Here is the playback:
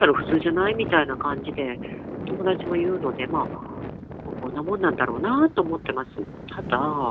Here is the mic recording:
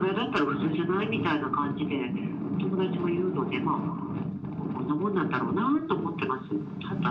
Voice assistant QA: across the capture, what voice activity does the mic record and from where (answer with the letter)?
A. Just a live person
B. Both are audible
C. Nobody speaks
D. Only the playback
D